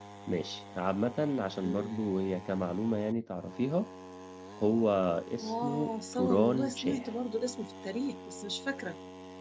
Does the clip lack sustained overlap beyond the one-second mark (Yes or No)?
No